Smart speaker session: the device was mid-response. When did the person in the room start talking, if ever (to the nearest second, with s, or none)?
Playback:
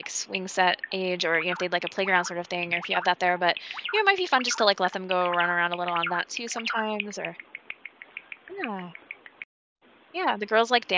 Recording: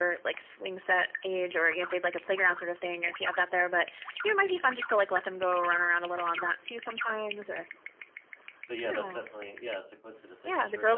9 s